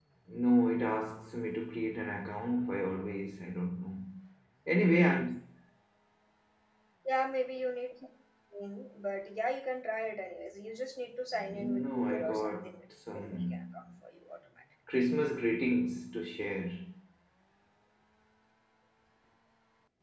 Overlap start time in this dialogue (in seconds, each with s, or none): 11.3 s